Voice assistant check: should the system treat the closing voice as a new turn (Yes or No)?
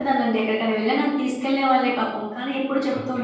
No